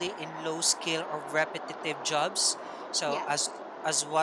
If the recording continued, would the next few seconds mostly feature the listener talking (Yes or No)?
No